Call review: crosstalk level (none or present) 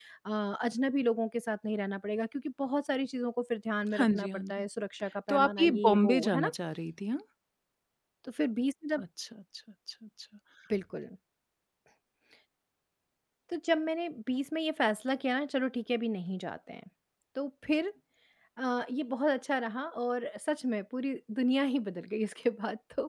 present